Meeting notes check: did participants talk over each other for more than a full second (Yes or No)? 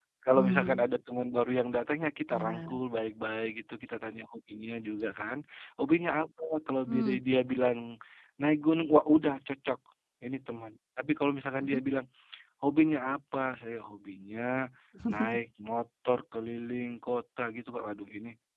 No